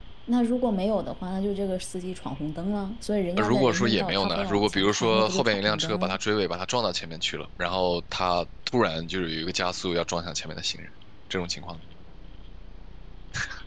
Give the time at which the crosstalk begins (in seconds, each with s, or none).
3.4 s